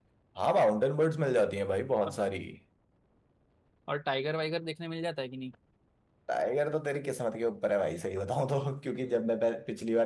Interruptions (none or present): none